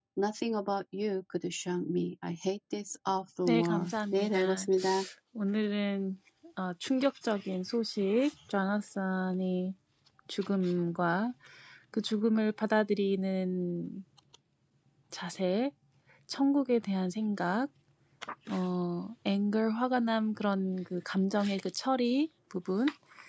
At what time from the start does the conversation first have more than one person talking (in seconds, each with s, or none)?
3.4 s